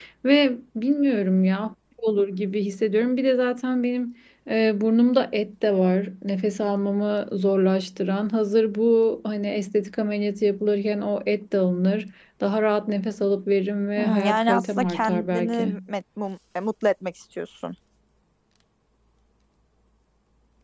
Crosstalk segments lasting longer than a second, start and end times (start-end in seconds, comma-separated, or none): 14.0-15.5